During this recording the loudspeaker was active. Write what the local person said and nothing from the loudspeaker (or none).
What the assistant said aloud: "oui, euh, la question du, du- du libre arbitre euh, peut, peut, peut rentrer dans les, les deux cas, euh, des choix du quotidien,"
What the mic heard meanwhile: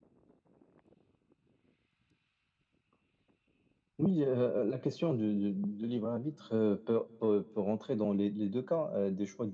none